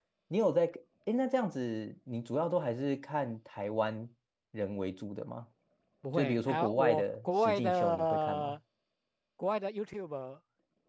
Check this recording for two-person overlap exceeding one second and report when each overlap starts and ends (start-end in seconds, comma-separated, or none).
6.2-8.6